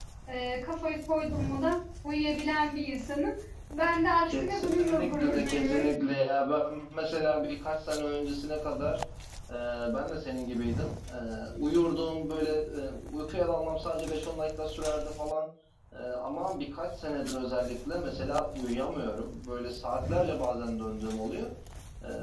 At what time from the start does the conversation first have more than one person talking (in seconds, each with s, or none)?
4.2 s